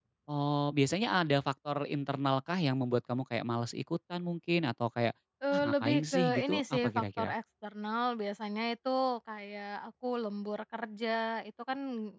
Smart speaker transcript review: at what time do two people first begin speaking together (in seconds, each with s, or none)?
5.5 s